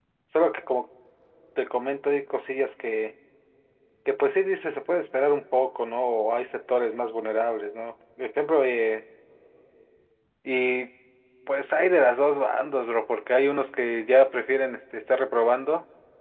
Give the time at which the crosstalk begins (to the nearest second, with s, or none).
none